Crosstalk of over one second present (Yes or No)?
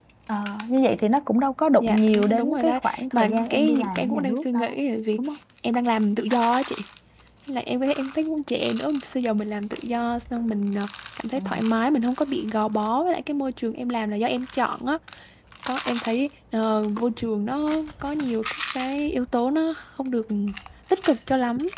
Yes